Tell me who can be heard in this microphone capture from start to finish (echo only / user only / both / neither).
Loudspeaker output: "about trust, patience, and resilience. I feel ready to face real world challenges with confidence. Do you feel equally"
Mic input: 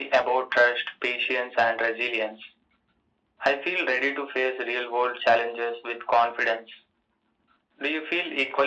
echo only